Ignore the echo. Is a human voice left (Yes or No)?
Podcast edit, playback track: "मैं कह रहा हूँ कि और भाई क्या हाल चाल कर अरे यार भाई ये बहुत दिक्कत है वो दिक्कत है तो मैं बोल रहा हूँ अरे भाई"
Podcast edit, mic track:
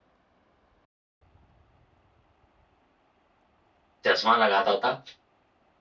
Yes